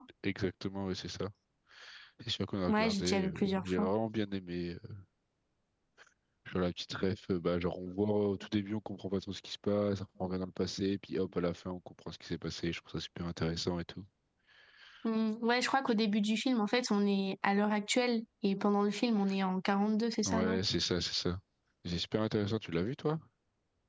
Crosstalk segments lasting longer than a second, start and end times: 2.7-3.9

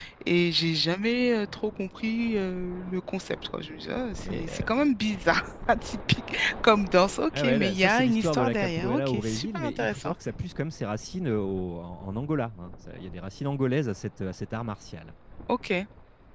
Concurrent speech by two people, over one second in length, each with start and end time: 7.4-10.1

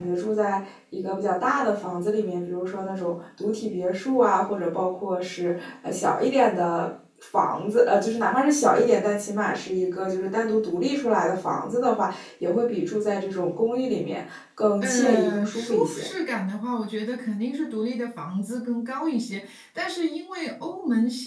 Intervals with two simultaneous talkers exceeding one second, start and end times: 14.8-16.1

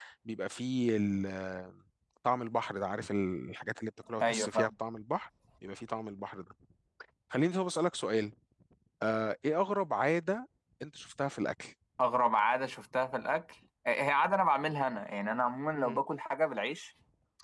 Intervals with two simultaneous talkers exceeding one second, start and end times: none

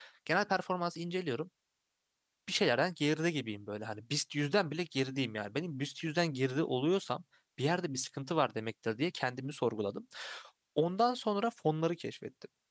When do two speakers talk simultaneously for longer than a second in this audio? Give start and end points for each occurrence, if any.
none

